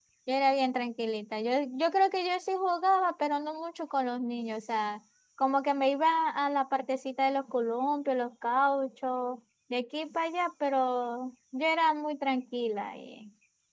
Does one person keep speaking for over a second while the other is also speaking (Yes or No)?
No